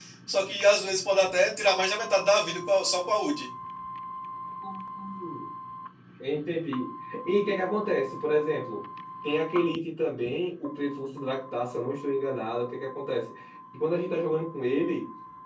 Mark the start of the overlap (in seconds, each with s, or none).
none